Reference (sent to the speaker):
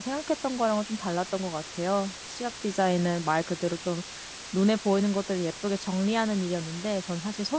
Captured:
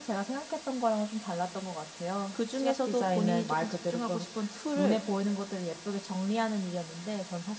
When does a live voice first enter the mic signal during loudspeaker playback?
2 s

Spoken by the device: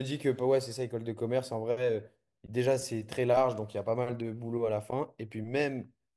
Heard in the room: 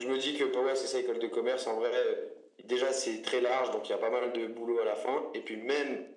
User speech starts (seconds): none

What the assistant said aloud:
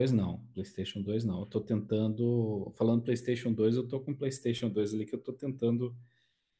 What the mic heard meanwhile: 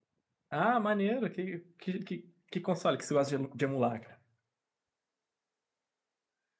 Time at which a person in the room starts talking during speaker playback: 0 s

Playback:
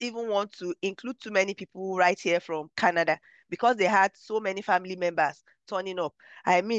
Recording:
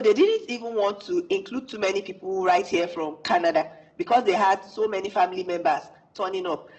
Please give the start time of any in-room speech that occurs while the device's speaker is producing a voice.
none

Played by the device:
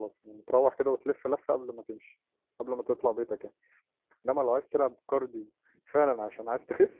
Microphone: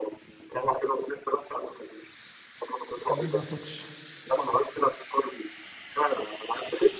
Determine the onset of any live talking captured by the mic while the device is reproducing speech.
3 s

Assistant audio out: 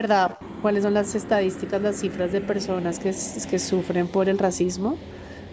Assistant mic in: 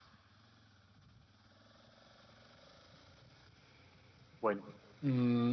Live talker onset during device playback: 4 s

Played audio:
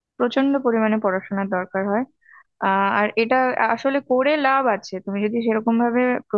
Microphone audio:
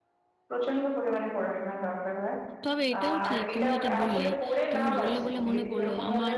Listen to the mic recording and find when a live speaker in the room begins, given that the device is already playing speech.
3 s

